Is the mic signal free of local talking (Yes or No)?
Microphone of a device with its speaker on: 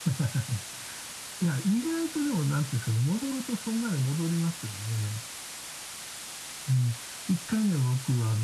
Yes